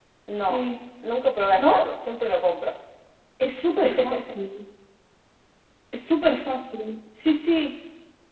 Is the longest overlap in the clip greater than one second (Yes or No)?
No